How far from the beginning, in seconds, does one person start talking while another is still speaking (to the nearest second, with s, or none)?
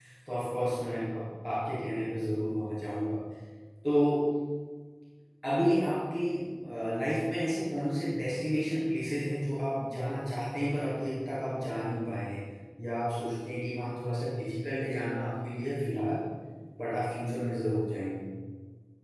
none